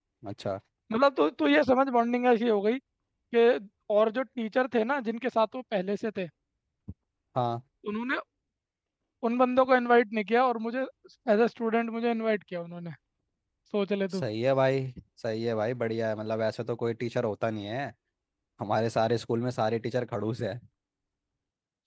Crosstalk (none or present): none